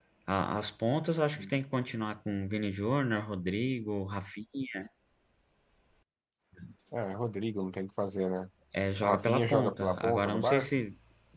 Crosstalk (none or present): present